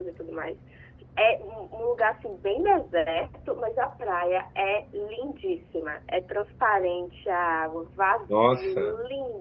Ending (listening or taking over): listening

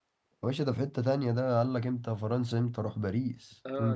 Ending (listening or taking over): taking over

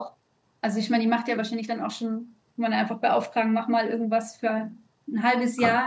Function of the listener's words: listening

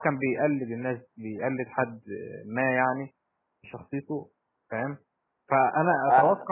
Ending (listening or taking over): listening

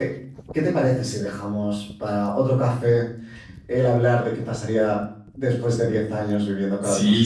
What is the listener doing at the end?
taking over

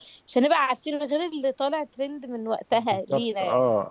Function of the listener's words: taking over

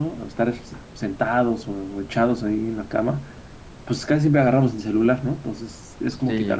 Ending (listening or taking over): listening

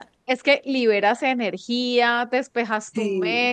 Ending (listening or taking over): listening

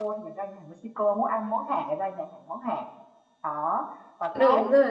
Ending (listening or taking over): listening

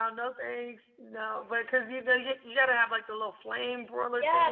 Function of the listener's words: taking over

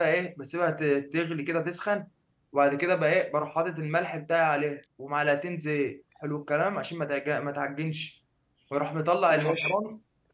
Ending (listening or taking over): listening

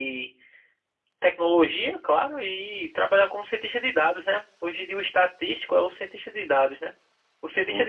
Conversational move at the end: listening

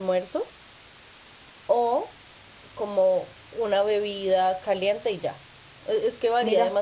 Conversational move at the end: listening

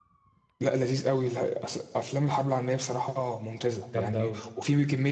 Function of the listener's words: listening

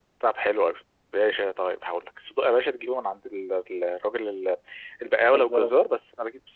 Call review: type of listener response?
listening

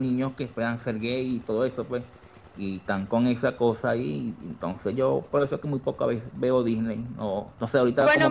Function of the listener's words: taking over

